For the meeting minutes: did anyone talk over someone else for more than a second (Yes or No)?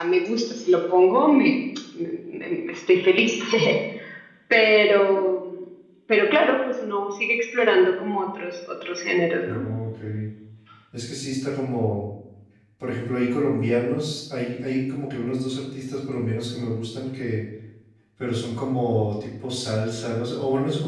No